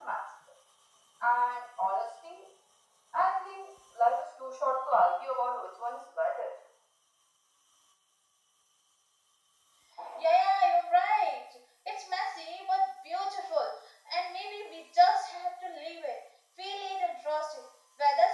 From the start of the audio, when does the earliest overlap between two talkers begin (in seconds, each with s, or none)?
none